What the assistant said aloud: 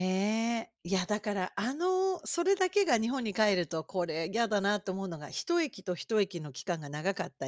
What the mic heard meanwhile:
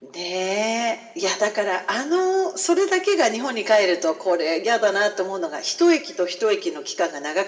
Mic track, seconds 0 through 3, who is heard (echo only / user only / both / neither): echo only